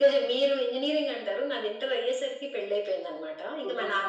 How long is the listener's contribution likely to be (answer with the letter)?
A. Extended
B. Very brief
B